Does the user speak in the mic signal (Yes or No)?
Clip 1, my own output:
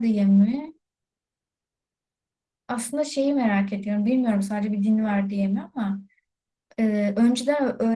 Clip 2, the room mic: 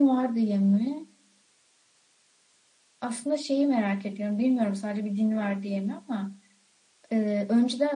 No